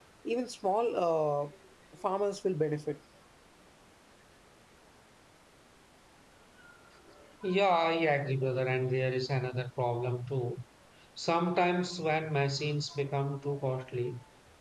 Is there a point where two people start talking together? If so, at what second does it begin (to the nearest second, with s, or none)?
none